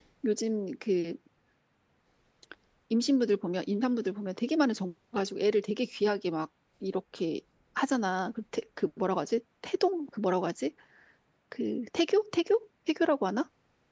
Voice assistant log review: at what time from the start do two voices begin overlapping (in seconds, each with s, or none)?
none